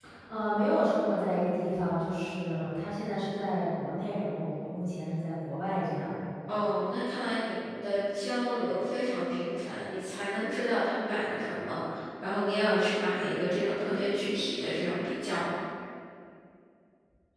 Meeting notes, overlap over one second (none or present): none